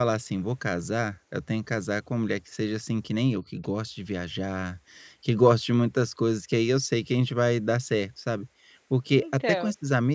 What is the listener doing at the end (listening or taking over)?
listening